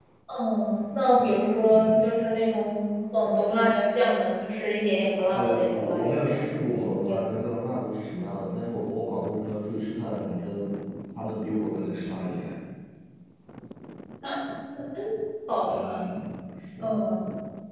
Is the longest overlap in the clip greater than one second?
Yes, from 5.3 s

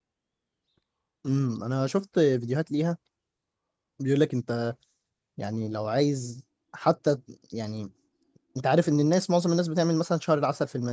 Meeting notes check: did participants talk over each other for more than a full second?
No

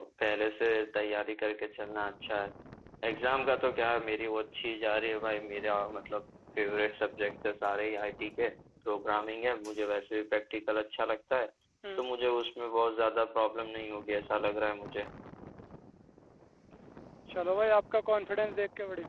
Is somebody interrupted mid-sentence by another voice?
No

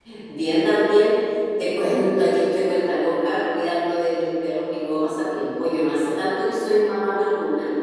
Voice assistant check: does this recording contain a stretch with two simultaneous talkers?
No

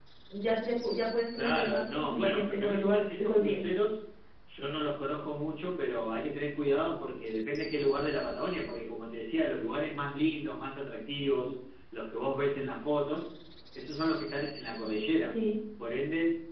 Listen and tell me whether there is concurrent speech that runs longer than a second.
Yes, from 1.3 s

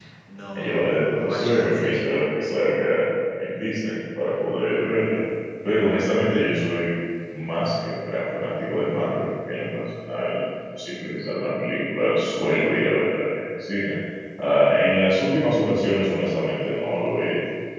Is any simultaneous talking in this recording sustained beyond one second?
Yes, from 0.5 s

